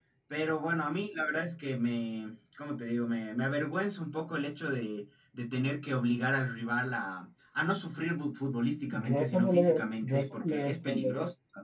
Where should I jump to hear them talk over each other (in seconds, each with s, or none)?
8.9 s